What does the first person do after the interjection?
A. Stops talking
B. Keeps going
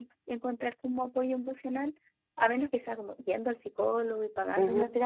A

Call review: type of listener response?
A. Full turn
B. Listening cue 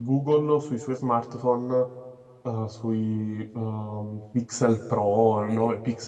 B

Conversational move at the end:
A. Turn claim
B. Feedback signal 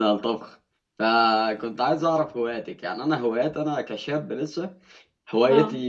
B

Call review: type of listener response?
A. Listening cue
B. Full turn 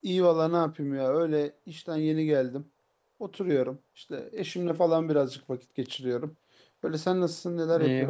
B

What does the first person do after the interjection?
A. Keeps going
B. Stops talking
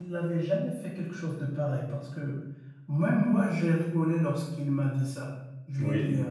A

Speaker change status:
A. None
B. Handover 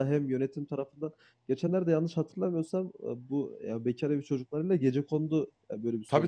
B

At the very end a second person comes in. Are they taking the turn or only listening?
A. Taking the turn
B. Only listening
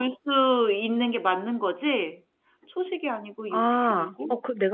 A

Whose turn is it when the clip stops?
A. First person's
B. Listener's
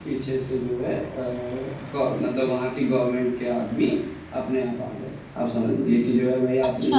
A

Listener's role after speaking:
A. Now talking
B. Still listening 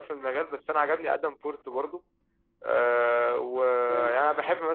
B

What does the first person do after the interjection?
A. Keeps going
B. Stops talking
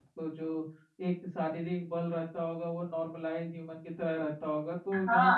B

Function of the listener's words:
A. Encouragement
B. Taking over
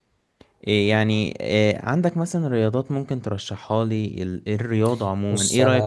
B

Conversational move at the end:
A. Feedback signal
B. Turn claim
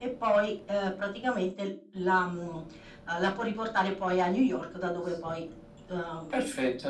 B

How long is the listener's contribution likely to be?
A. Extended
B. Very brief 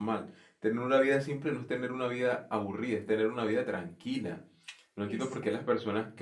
B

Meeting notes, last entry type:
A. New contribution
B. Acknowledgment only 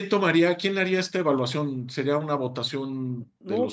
B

